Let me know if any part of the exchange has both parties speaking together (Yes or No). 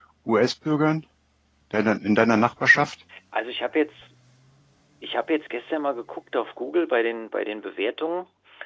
No